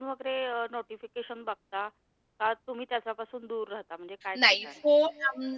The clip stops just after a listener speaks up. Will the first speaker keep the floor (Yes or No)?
No